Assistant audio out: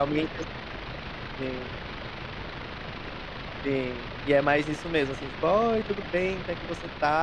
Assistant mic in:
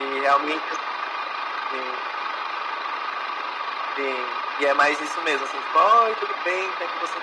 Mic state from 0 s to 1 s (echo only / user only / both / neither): echo only